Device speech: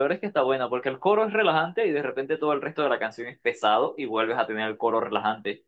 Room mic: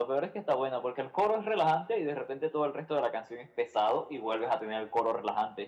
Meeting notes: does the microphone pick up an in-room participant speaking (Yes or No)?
No